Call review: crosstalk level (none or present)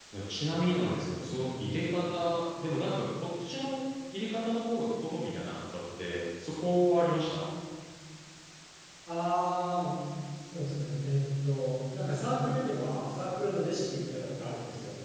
none